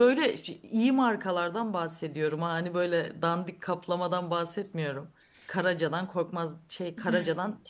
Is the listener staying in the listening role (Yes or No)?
Yes